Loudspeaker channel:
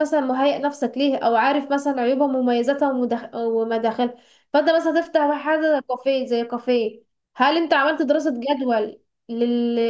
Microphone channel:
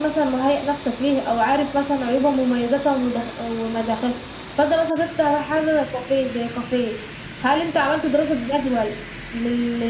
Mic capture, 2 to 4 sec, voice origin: echo only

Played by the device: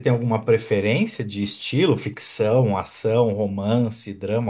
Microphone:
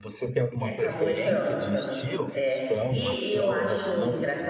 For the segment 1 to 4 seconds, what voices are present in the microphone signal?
both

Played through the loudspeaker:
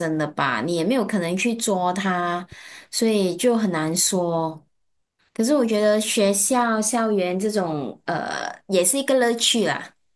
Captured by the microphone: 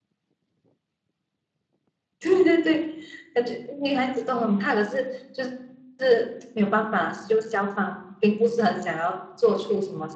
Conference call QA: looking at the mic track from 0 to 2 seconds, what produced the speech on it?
neither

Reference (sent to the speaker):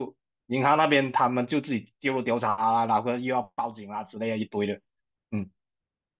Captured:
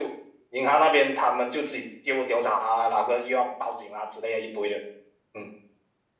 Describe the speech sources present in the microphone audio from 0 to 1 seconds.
echo only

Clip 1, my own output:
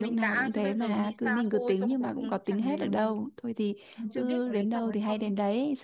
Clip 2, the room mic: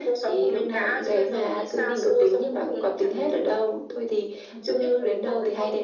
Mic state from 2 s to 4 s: echo only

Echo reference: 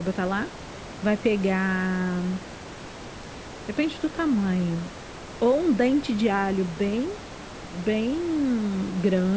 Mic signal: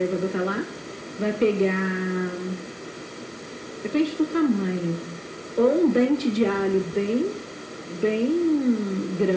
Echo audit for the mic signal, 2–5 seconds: echo only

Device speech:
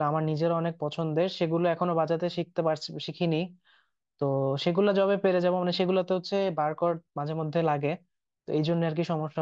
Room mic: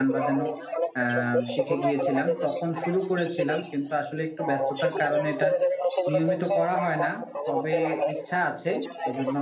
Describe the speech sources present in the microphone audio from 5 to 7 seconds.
both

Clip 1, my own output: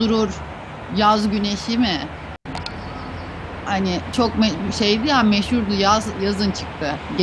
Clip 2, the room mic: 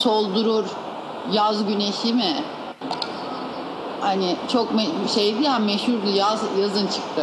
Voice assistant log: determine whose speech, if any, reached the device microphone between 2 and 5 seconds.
echo only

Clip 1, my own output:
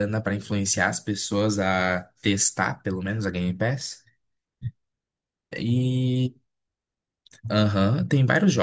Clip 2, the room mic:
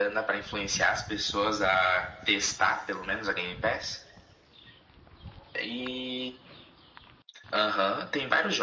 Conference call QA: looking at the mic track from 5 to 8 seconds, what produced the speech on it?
echo only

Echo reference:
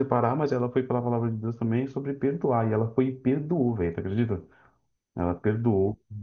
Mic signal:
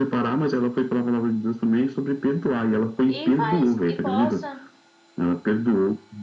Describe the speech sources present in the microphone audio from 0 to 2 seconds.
echo only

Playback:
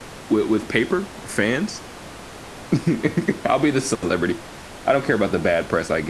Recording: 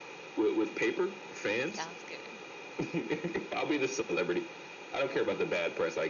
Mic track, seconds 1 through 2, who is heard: both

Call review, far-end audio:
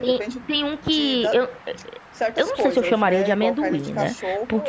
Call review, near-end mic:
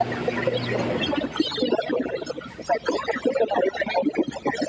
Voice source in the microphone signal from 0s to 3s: echo only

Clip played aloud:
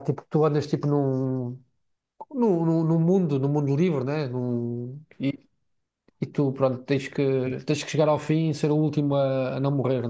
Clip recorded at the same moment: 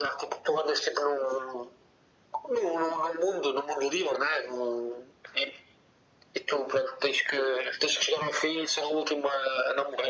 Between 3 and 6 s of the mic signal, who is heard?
echo only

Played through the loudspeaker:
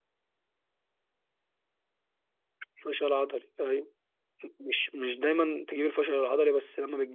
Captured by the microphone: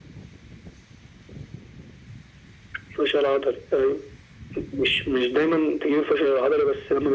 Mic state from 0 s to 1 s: neither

